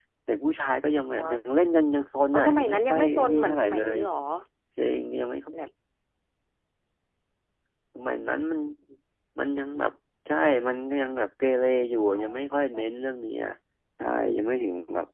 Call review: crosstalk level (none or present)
present